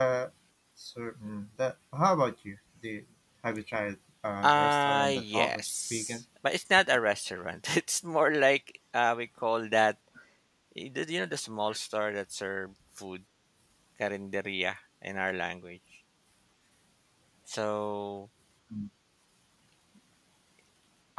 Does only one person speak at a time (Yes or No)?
No